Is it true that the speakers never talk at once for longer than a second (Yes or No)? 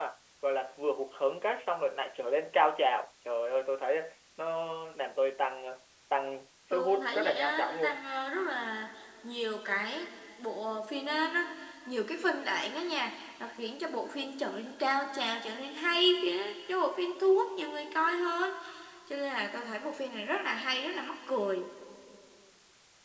No